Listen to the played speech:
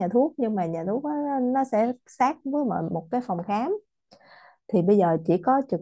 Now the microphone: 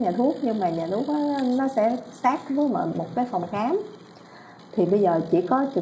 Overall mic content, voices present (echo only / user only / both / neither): echo only